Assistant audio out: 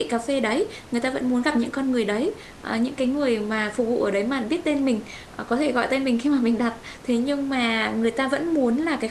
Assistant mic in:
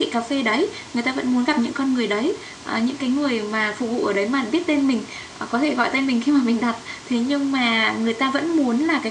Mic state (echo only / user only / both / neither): echo only